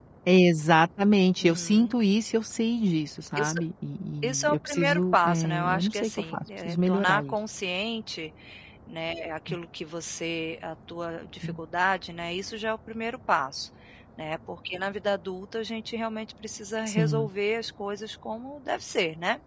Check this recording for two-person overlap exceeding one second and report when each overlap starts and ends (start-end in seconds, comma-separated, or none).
4.2-7.3